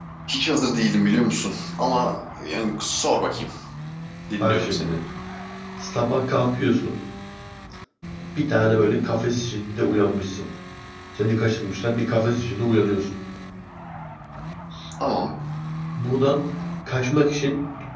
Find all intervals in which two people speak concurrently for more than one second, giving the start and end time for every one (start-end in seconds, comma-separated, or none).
none